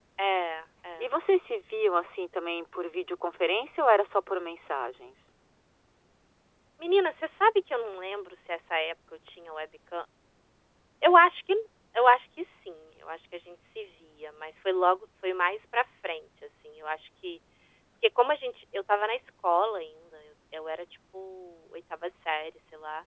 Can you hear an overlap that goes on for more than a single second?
No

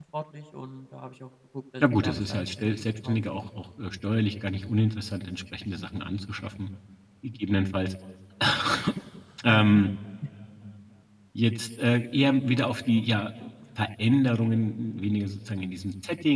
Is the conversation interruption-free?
No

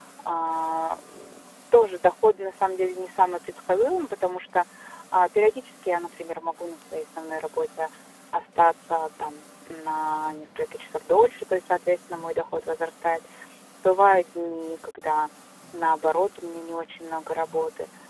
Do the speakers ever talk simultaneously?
No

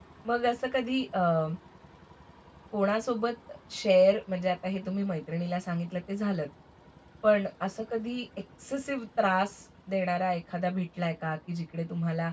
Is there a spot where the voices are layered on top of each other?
No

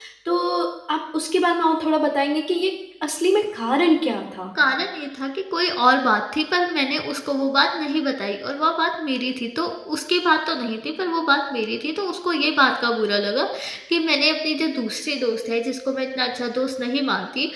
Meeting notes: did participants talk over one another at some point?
No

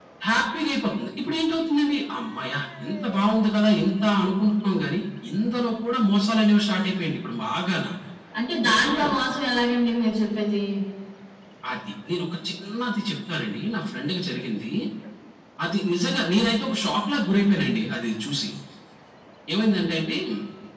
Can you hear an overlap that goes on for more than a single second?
No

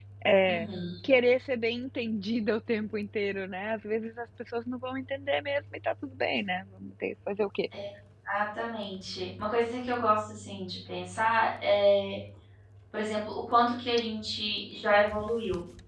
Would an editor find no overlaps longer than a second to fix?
Yes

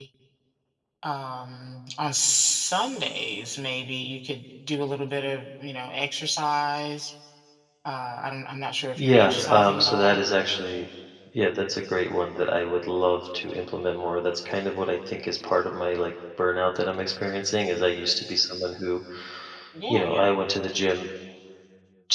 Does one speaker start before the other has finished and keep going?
Yes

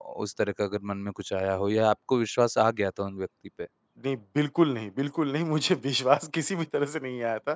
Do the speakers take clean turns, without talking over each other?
Yes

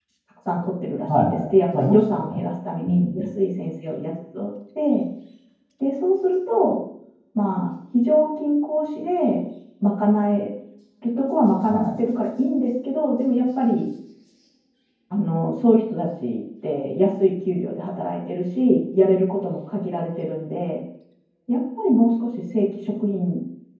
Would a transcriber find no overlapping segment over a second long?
No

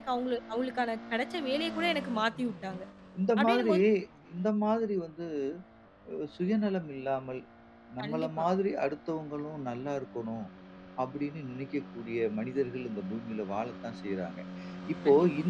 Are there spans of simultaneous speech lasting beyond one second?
No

